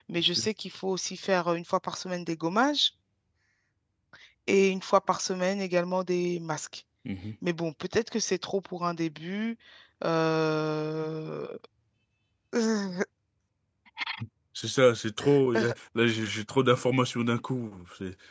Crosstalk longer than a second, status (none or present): none